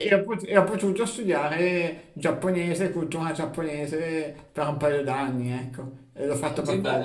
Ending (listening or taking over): taking over